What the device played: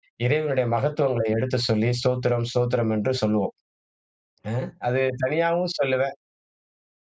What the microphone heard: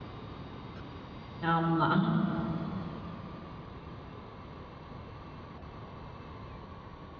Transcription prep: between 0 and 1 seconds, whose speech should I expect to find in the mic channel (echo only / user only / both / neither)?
neither